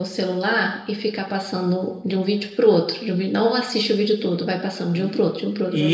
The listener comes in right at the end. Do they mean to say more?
Yes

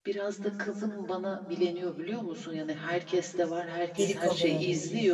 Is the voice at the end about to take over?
No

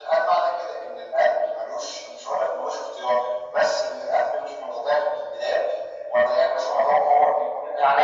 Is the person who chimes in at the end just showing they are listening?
Yes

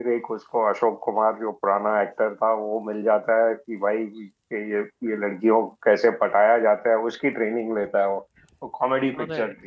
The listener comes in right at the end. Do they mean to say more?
No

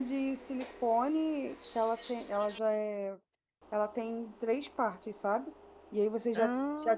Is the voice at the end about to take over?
No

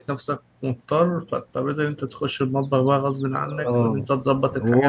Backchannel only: No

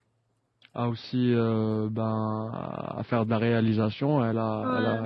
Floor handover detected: No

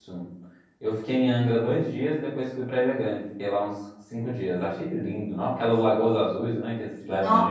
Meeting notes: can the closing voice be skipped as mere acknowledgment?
No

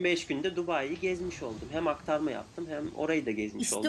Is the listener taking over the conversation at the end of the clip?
Yes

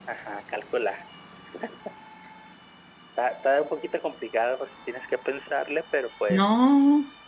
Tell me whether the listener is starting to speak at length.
Yes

